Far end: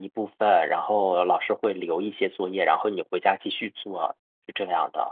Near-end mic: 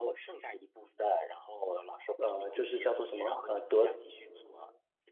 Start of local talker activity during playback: 2.2 s

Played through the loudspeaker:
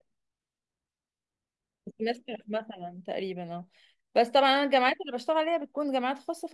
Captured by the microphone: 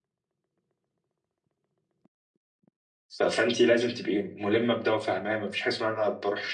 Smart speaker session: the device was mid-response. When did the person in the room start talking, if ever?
3.2 s

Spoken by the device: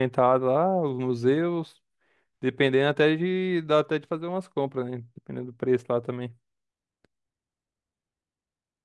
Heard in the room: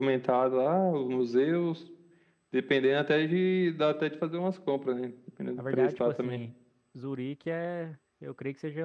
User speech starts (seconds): 5.5 s

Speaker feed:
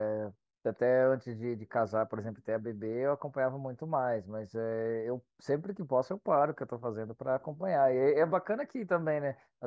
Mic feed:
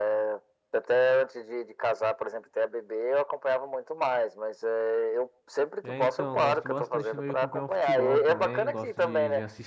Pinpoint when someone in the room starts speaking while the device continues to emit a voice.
5.8 s

